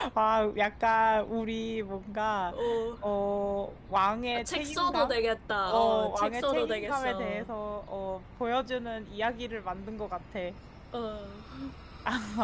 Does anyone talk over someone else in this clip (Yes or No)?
Yes